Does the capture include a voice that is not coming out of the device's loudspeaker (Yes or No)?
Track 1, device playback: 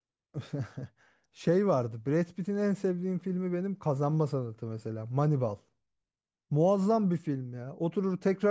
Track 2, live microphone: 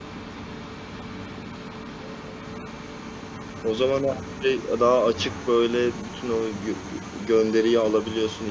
Yes